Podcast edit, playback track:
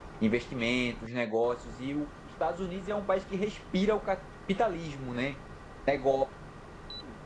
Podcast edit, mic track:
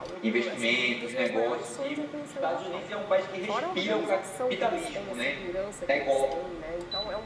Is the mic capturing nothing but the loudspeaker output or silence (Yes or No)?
No